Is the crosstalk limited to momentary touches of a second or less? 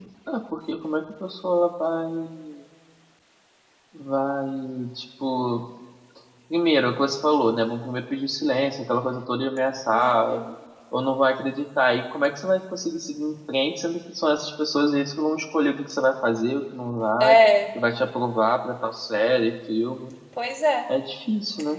Yes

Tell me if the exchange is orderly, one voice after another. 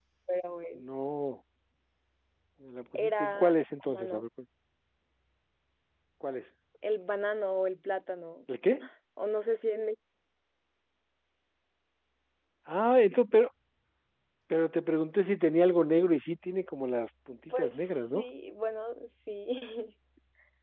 No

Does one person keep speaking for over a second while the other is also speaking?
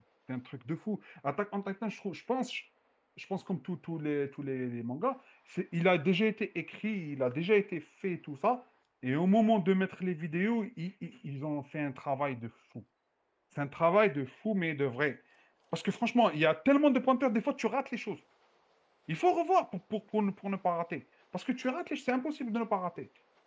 No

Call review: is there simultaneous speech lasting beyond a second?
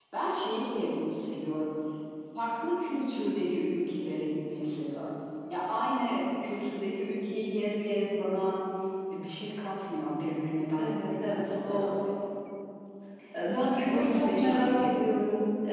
Yes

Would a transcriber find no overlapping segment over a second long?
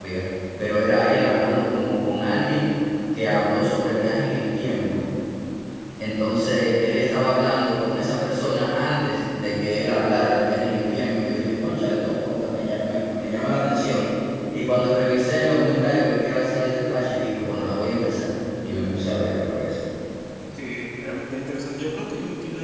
Yes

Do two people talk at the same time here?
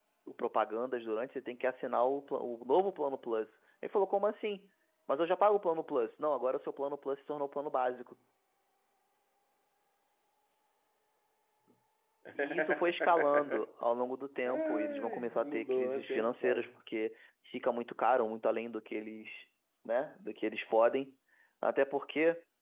Yes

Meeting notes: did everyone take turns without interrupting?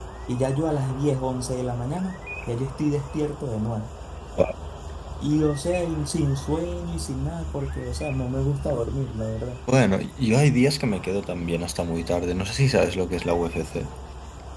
Yes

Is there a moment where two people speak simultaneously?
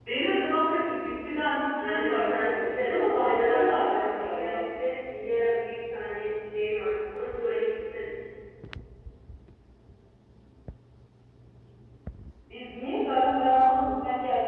Yes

